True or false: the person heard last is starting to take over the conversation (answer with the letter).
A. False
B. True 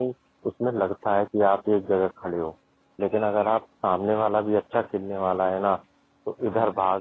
A